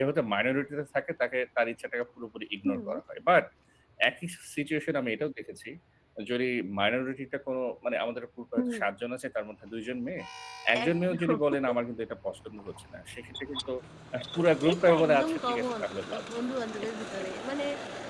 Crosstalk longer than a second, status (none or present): present